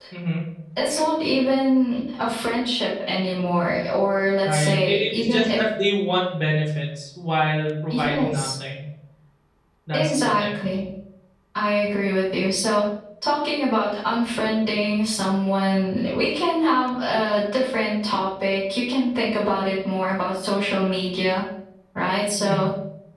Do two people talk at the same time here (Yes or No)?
Yes